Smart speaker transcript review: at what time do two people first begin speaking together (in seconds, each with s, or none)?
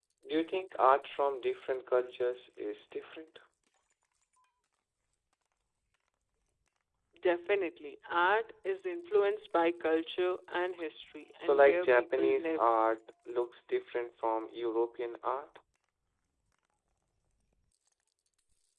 11.4 s